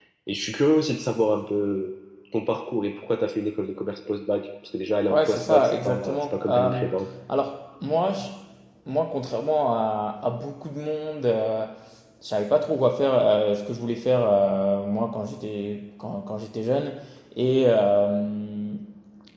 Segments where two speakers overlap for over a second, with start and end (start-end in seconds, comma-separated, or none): 5.1-6.8